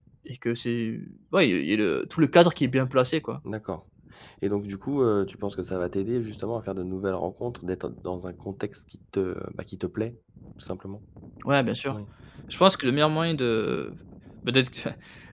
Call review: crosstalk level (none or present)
none